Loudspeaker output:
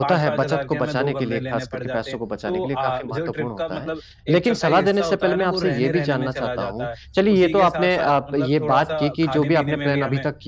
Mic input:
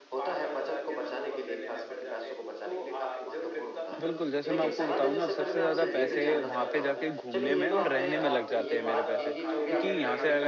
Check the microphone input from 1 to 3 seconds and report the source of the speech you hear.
echo only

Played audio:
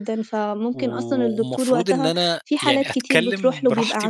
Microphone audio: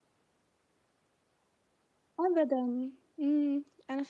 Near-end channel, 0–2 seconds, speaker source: neither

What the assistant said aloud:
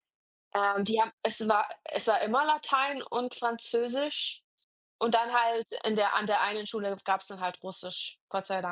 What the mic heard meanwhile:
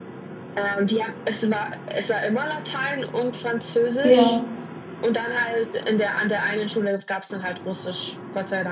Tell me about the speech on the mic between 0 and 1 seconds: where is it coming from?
echo only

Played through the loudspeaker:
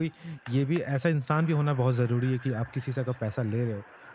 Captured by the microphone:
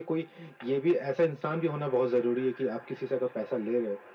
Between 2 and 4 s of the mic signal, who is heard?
echo only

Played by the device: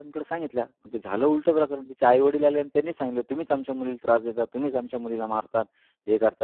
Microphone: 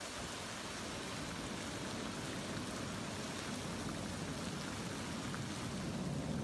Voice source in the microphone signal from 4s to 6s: neither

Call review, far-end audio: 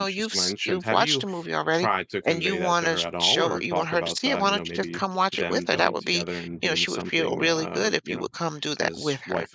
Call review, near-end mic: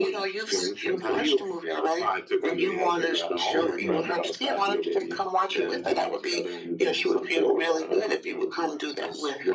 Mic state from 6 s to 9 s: echo only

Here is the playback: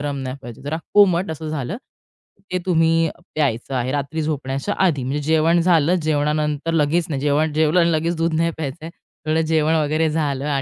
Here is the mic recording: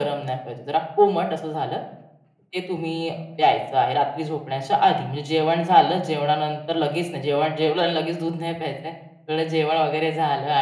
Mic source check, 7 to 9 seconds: echo only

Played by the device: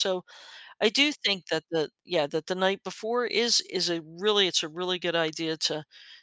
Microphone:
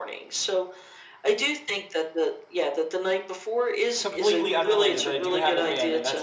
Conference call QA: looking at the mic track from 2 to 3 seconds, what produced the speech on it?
echo only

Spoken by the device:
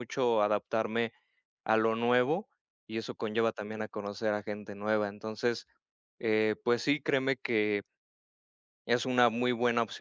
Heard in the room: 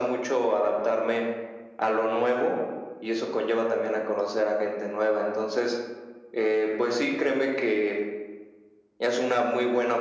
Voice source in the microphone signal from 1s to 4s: echo only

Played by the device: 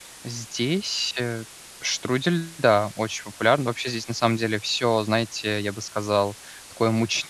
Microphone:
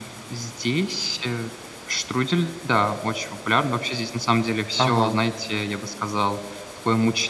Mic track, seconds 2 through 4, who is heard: echo only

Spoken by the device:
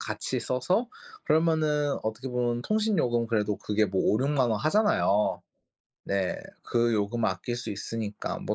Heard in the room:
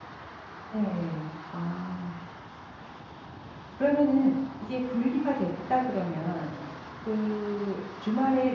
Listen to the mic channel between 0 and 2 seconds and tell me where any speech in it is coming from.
user only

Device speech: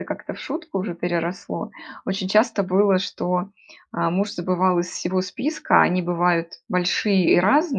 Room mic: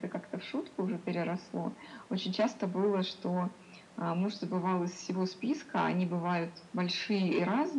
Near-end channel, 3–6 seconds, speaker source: echo only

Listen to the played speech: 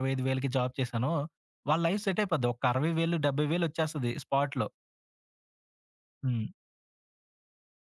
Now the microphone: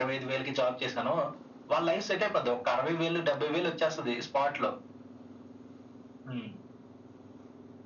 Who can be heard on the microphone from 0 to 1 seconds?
echo only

